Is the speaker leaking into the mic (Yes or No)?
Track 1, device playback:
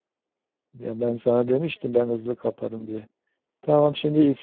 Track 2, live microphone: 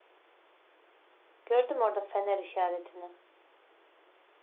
No